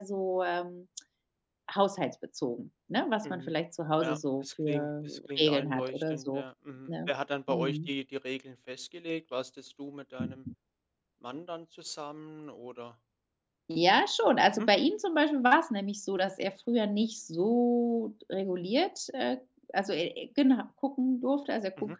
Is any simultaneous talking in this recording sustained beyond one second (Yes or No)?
Yes